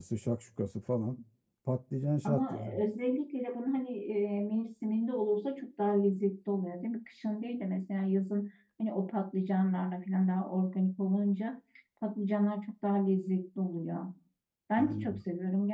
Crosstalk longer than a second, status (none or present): none